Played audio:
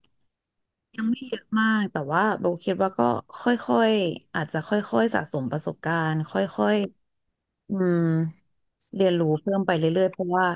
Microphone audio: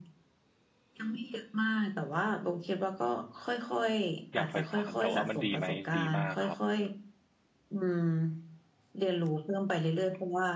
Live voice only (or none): อยากใฝ่ฝันแต่ว่ามันดีไหมดีมากครับ